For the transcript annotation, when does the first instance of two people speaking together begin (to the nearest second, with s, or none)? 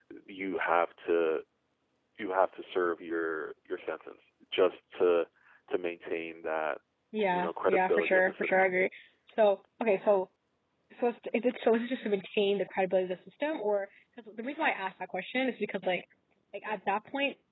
7 s